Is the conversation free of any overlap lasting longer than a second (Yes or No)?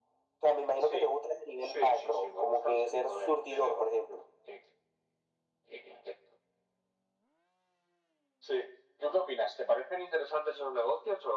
No